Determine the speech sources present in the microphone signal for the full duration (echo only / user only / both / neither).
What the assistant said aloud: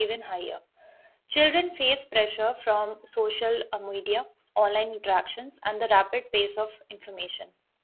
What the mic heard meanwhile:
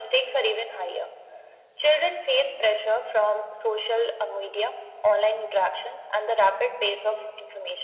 echo only